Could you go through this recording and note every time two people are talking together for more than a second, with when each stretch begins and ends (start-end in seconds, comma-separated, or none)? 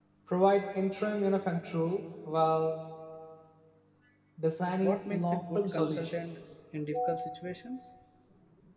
4.8-6.2